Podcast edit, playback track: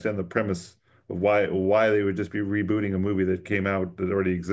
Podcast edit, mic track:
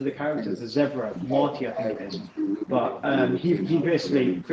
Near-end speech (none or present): present